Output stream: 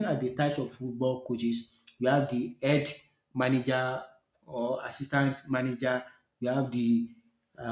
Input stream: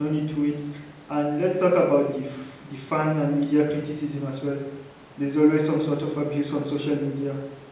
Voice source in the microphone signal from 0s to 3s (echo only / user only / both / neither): user only